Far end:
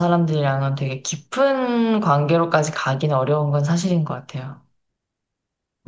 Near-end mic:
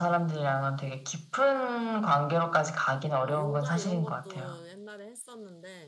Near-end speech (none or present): present